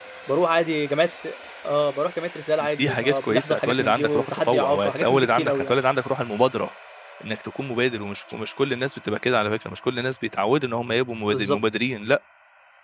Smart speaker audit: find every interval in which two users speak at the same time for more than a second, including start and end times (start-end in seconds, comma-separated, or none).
2.8-5.8